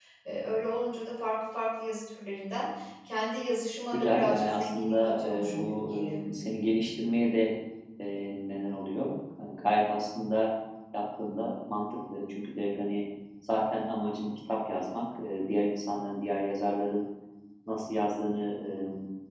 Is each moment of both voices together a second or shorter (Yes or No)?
No